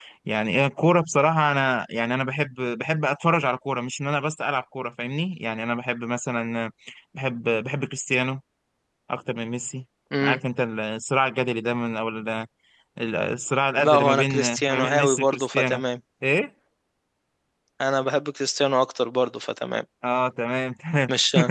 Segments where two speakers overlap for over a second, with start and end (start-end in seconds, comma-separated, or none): 13.8-15.8